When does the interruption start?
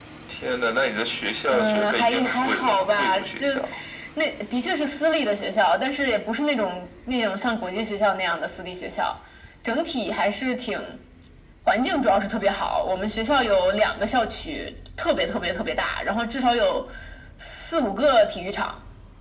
1 s

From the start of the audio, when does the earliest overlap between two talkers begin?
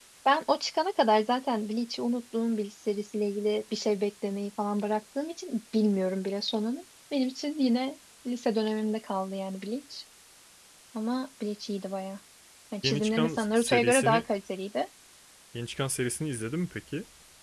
13 s

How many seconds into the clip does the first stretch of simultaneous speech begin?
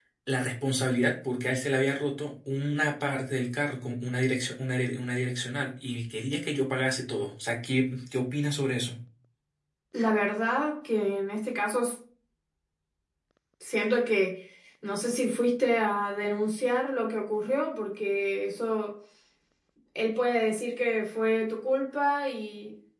none

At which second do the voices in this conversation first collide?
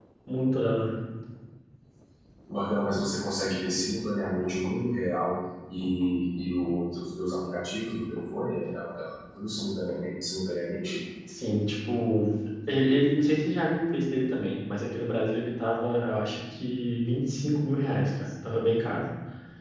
none

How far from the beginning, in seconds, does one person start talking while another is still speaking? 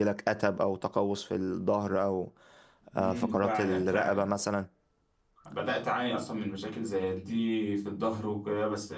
3 s

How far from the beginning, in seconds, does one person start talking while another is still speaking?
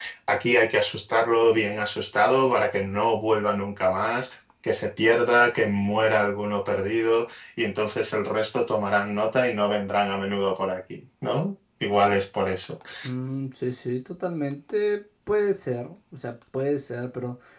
none

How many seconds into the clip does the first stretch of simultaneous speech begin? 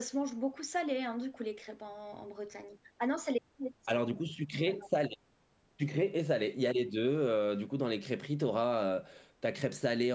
none

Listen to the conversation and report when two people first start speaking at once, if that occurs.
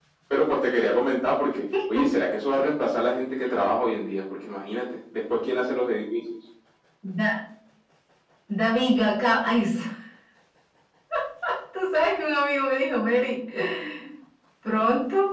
none

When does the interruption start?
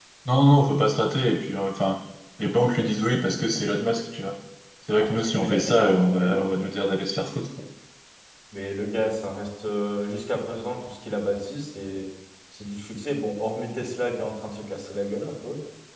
5 s

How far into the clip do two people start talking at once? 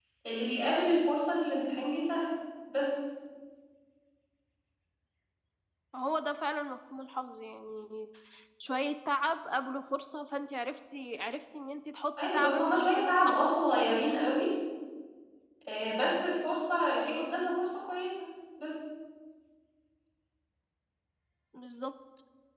12 s

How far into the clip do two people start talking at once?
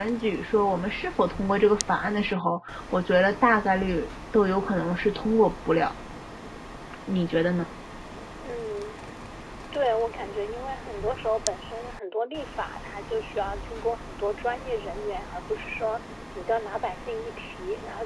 none

